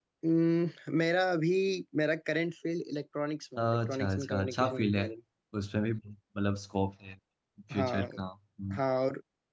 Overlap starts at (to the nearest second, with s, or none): 4 s